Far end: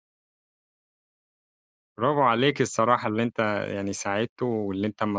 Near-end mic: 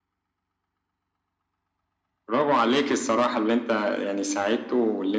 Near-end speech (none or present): none